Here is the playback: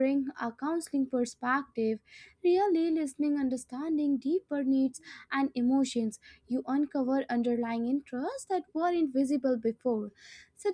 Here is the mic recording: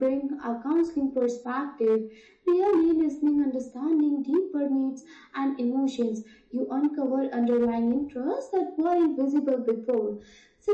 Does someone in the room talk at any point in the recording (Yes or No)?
No